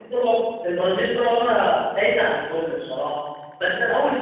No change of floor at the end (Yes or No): Yes